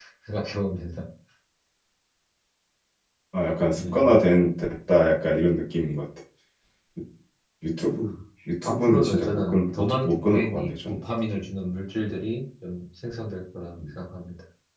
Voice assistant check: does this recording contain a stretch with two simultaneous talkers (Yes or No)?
Yes